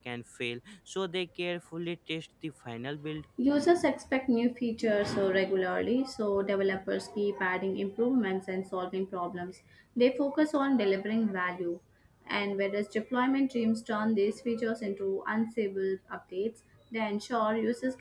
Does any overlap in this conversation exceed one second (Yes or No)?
No